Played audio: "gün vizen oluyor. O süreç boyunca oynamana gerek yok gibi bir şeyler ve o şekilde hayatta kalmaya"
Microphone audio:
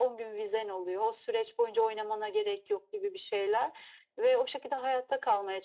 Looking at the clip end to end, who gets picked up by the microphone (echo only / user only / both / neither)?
echo only